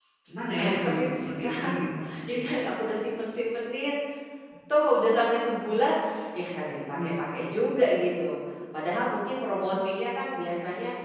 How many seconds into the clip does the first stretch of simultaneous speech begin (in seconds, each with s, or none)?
0.6 s